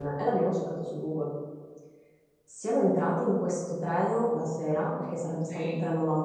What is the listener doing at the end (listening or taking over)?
listening